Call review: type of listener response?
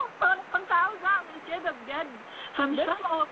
listening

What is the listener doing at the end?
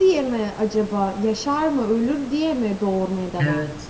taking over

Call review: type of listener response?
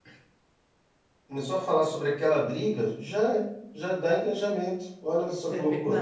taking over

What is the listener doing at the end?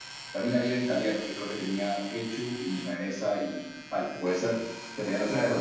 taking over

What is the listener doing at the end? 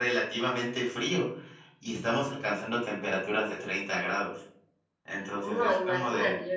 taking over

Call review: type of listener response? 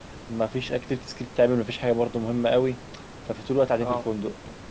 listening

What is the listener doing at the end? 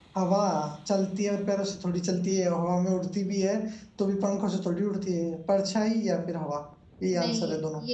taking over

